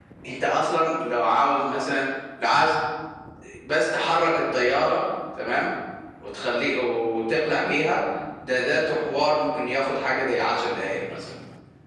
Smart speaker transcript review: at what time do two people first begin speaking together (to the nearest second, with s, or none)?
none